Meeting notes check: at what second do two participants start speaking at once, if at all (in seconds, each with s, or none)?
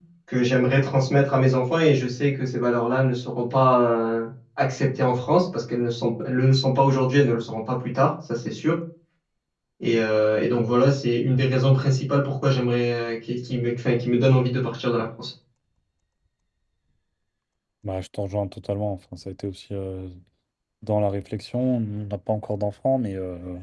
none